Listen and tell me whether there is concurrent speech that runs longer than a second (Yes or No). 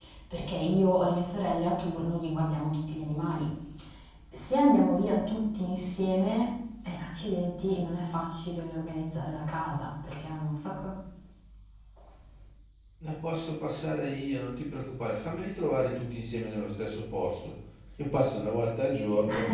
No